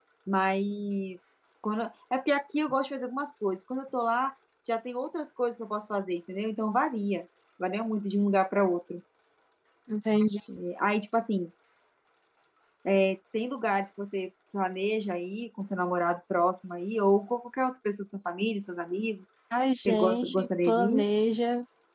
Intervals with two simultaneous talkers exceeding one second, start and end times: 19.8-21.0

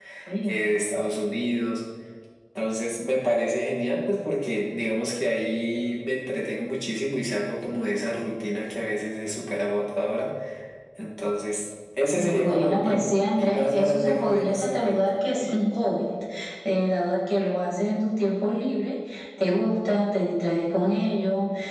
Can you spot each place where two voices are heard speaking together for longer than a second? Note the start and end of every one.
12.4-15.0

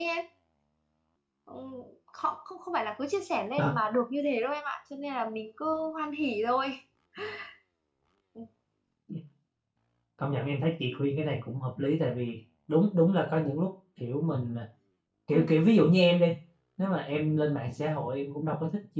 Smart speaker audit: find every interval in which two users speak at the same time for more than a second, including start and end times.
none

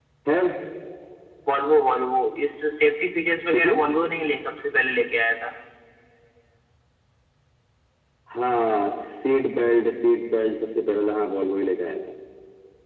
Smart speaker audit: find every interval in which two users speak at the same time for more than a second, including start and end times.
none

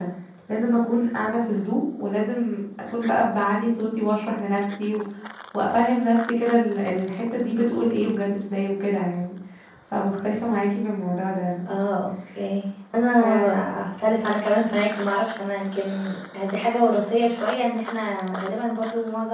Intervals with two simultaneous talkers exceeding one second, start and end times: none

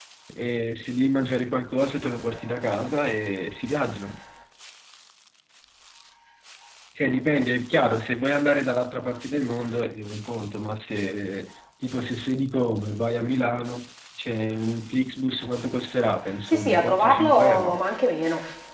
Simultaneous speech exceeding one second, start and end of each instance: 16.5-17.8

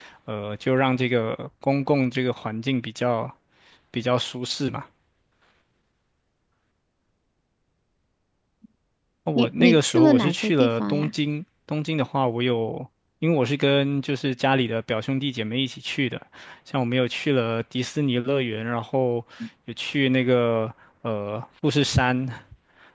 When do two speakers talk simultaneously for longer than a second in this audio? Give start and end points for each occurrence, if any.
9.3-11.1

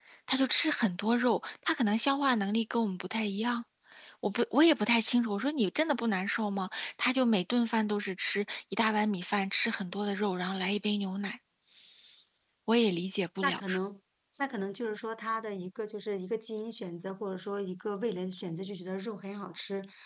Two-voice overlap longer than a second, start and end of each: none

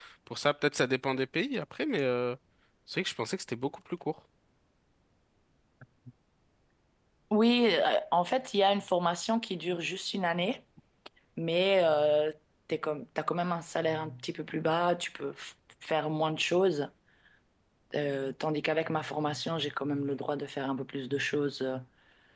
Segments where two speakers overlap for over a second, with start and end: none

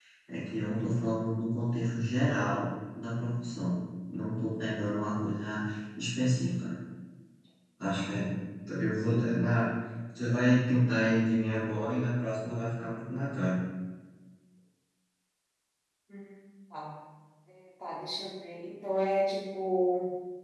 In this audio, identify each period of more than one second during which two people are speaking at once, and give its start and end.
none

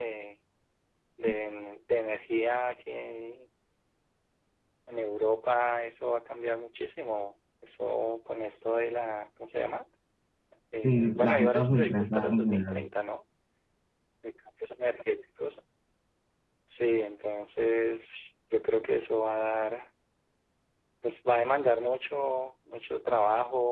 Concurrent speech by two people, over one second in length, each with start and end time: 10.8-12.8

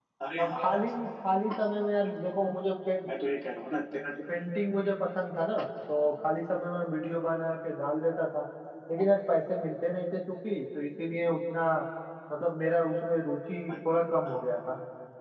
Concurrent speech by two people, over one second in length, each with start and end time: none

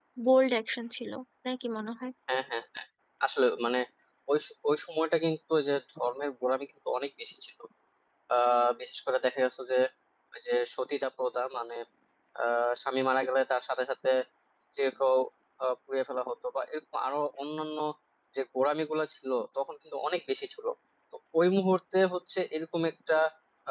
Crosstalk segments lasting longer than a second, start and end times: none

